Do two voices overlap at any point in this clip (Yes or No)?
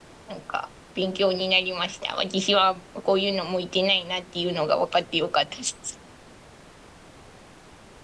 No